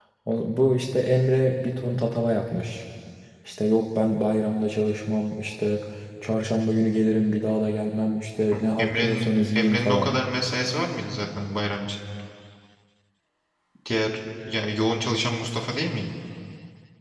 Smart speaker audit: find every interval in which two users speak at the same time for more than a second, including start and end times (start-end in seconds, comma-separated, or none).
8.8-10.1